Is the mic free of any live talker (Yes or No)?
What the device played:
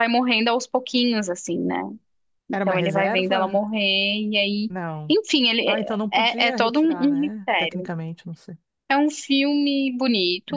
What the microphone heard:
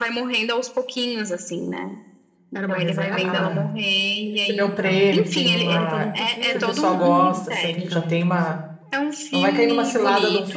No